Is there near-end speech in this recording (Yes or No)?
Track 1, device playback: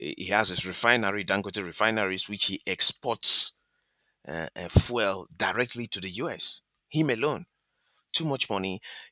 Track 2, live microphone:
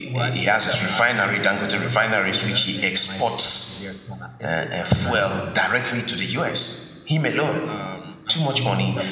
Yes